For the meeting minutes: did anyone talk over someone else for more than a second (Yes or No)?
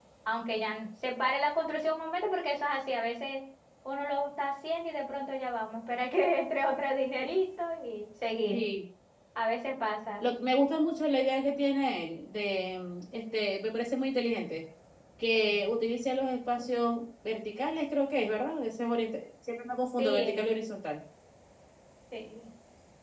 No